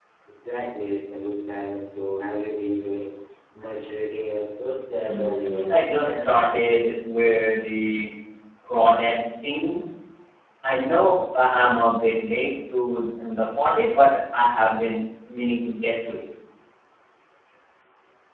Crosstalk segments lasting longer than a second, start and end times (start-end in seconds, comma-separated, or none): 5.0-6.3